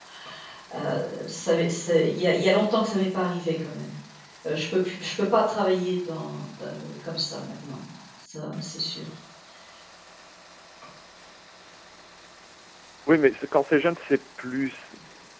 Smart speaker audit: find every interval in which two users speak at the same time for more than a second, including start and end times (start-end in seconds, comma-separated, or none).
none